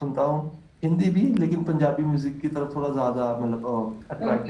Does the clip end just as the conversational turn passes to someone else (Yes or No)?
Yes